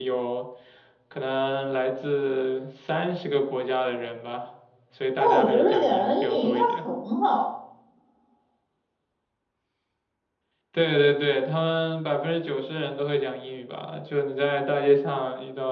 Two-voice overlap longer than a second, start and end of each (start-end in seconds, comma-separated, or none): 5.2-6.8